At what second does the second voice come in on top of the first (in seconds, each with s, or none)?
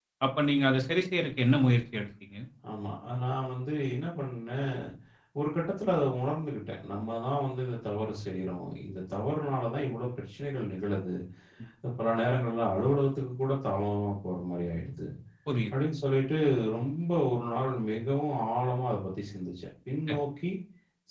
none